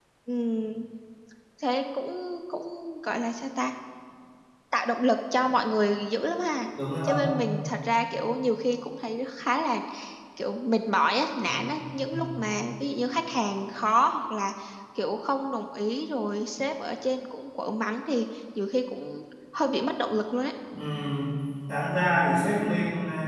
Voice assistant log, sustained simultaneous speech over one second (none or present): none